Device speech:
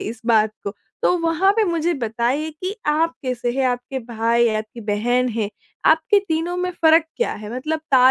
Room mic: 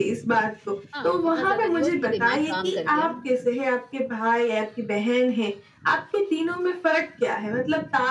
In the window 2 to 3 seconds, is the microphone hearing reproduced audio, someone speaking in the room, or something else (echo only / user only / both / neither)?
both